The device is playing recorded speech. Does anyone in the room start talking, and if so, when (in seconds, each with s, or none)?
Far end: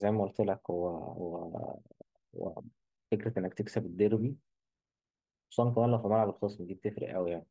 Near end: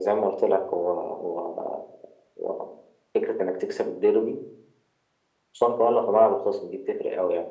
none